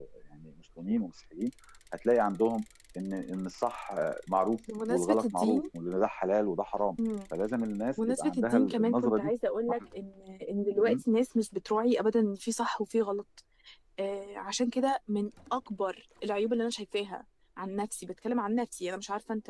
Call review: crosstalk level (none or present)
present